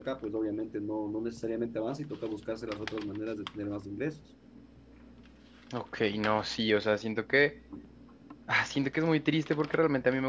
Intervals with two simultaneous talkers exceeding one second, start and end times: none

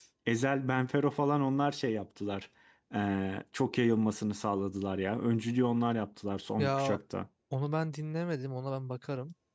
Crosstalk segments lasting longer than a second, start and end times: none

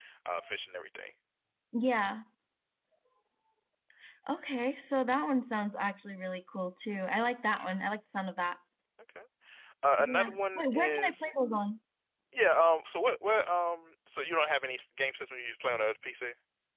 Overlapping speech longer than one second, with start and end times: 10.0-11.3

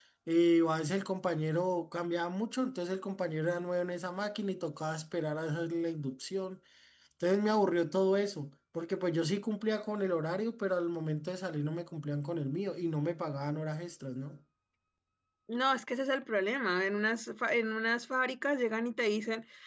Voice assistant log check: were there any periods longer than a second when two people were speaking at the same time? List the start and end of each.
none

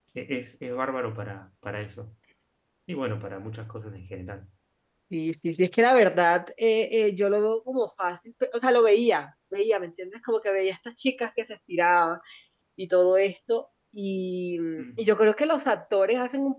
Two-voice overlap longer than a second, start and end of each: none

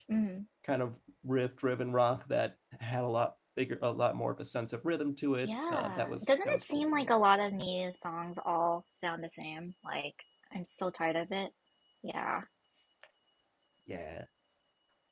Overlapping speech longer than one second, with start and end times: 5.4-7.1

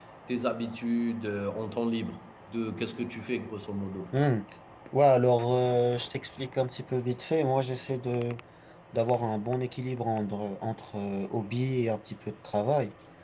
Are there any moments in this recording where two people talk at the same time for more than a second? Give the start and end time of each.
none

